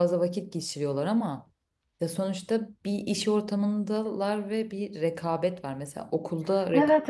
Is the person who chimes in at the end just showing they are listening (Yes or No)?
Yes